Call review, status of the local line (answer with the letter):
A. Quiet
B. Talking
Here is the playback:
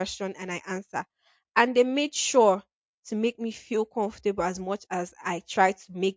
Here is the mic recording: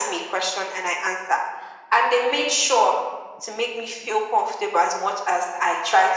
A